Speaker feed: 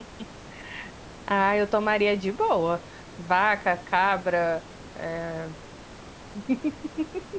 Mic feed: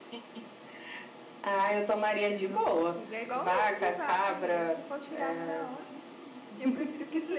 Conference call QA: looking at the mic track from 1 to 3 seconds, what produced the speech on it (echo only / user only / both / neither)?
both